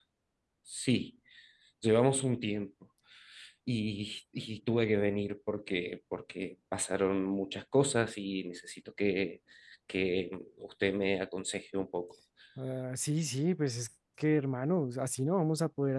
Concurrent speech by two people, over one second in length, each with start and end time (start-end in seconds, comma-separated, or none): none